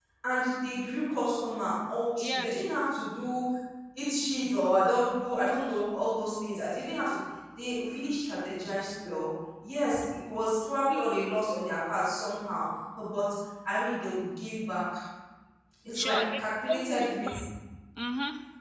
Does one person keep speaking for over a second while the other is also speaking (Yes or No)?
Yes